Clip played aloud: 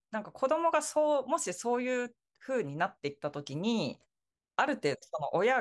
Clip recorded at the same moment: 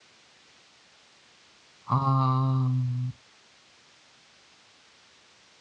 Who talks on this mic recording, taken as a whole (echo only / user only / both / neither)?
user only